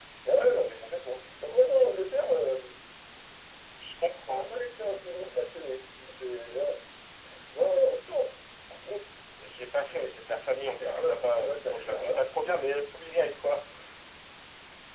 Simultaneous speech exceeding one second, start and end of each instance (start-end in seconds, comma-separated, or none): 10.8-12.2